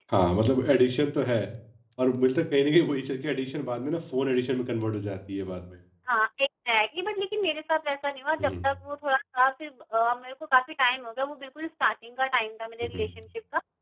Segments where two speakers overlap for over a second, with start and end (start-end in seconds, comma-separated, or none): none